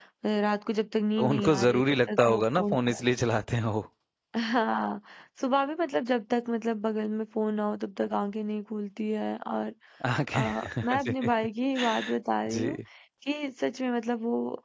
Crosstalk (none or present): present